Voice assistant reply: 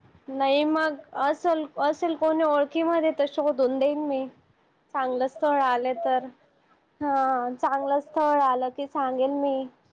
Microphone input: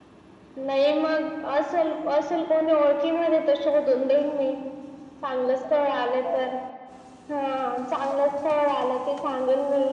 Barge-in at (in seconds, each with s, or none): none